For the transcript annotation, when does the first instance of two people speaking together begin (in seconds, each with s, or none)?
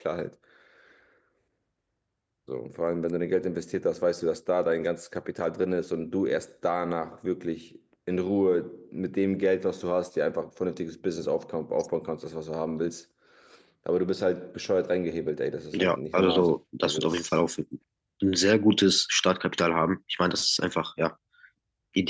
15.7 s